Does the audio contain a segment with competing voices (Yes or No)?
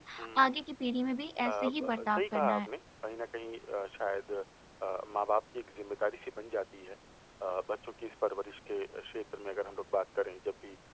Yes